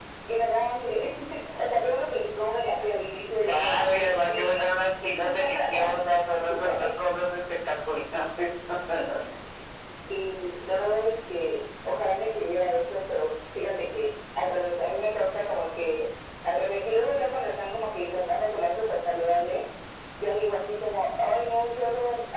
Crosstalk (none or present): present